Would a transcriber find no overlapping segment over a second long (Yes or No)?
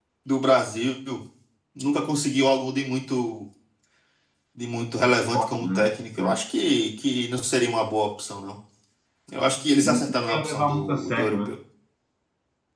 No